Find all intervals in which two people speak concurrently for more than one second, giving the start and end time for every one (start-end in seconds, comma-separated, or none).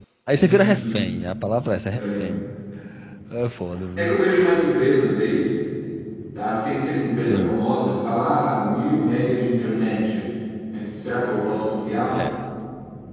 none